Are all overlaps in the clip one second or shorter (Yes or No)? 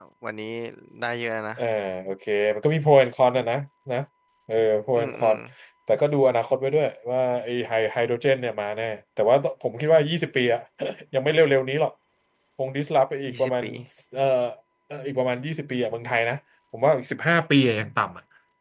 Yes